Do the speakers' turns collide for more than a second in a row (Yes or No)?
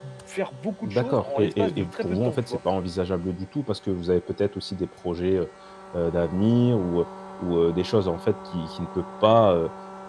Yes